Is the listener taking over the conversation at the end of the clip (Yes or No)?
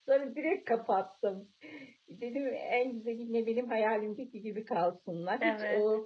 No